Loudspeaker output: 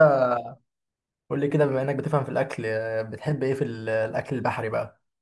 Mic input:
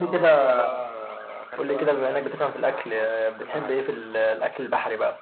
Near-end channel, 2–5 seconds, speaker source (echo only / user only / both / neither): both